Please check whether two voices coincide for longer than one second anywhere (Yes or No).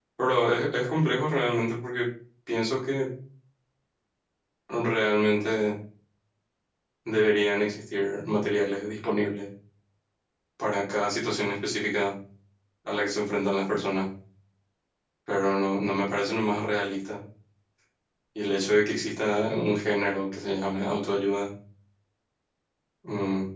No